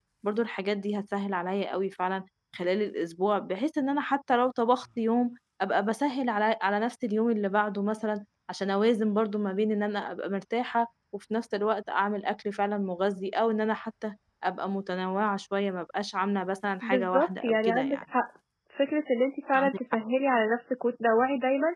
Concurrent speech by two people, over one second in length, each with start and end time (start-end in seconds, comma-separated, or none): 16.8-18.0